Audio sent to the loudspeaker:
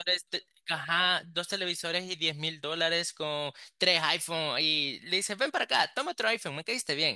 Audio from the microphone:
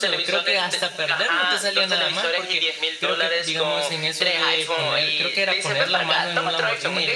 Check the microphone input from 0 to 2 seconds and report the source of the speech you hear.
both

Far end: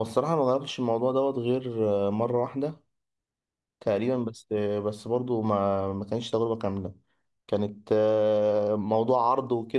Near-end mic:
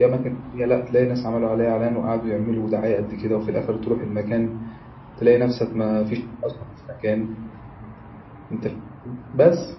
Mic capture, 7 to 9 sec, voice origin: user only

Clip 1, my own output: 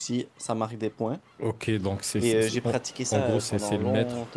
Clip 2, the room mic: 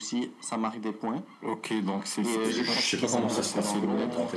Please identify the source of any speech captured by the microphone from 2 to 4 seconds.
both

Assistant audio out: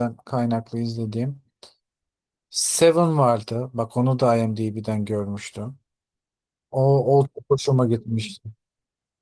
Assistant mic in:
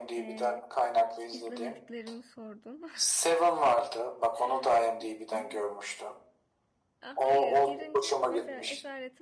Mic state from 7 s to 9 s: both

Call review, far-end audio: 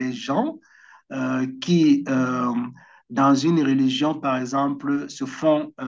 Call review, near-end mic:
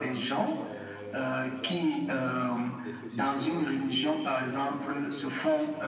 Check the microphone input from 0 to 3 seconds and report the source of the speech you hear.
both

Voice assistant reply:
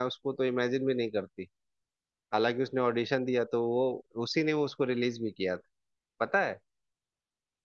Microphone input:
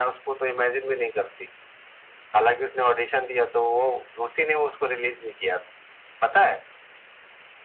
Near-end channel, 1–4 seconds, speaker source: echo only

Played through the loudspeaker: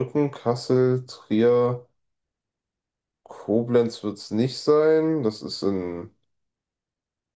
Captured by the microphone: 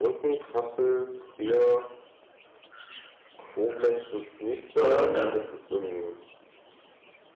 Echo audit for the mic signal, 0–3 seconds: echo only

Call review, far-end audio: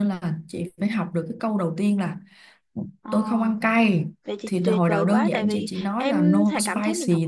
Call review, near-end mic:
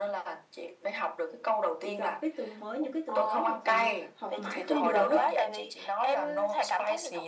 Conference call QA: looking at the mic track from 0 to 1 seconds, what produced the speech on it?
echo only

